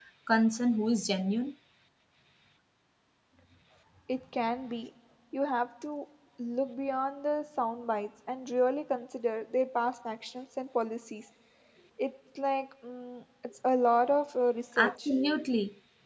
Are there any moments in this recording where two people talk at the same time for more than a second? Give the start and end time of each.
none

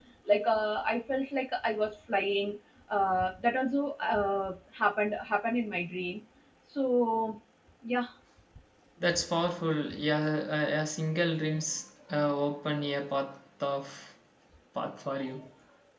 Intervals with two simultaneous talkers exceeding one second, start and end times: none

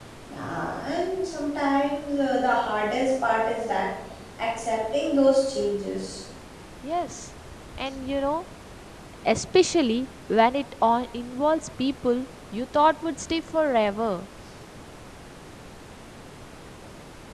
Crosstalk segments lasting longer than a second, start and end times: none

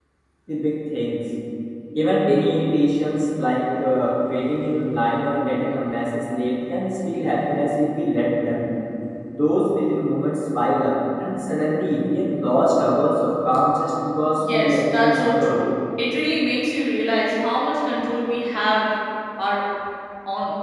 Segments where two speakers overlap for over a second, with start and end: 14.4-15.6

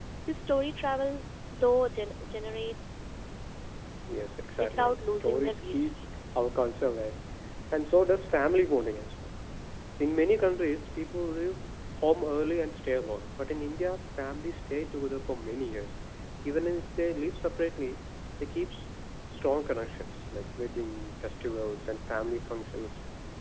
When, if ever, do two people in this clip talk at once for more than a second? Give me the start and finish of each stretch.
4.6-5.9

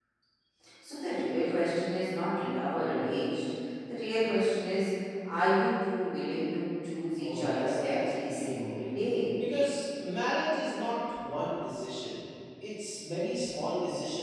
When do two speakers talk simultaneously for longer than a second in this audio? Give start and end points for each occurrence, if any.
7.2-8.7

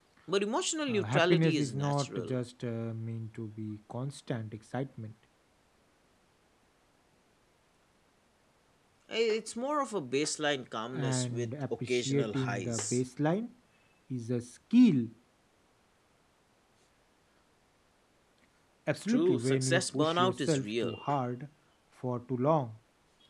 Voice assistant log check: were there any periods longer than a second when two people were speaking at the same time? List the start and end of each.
0.9-2.4, 10.9-13.0, 19.1-20.9

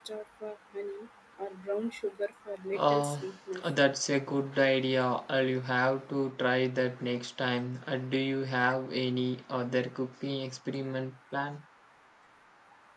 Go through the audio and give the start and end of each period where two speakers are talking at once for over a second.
none

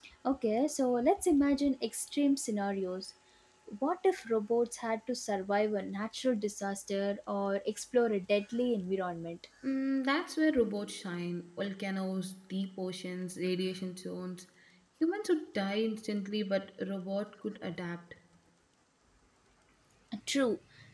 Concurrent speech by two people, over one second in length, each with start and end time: none

